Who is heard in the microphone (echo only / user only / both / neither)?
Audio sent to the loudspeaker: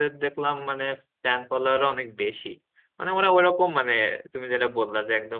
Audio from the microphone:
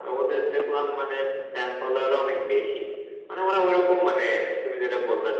echo only